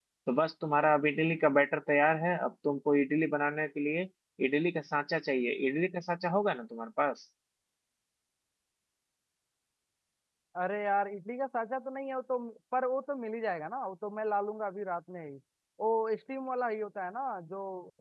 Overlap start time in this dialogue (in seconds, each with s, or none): none